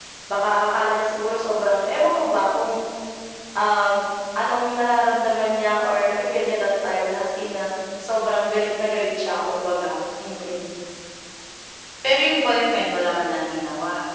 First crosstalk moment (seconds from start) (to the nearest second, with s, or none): none